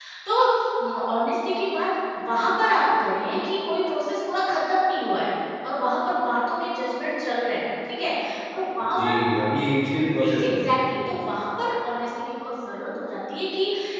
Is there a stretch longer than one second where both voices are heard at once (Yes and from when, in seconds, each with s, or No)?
No